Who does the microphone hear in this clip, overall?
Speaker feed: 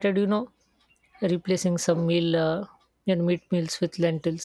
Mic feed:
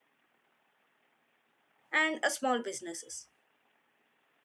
user only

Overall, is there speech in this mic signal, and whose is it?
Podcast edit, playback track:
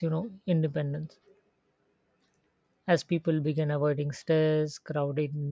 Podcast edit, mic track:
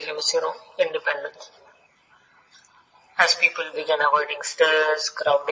echo only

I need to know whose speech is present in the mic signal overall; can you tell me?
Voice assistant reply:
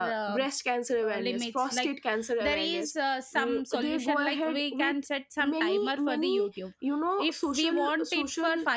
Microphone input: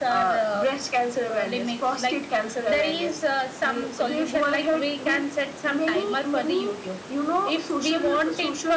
echo only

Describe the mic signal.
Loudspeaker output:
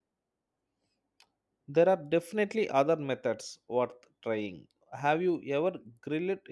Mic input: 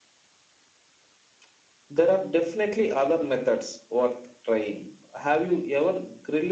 echo only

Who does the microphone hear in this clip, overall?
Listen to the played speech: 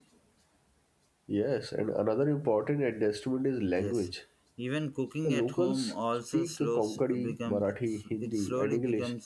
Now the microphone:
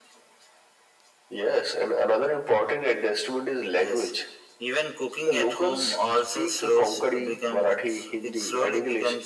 echo only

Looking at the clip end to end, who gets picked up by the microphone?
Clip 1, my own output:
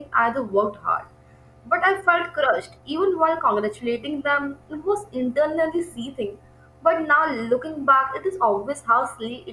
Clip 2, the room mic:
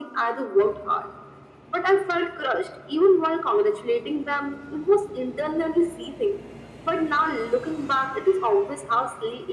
echo only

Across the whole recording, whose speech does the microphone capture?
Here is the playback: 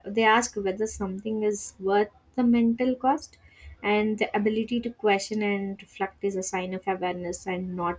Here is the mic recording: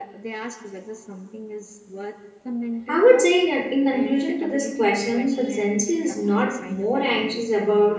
both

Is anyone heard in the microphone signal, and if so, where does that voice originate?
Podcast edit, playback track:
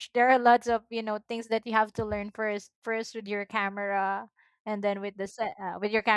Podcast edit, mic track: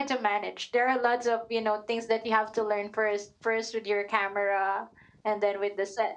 echo only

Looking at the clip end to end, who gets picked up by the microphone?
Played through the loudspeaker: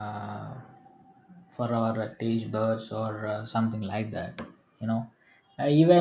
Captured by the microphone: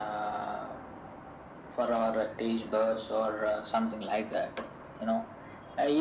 echo only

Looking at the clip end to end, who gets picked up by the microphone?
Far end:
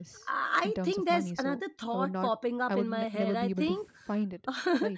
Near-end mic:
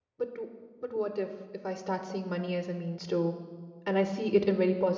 user only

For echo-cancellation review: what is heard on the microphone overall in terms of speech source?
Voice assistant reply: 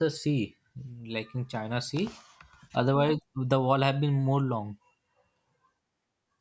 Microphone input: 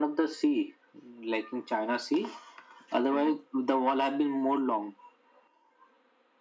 echo only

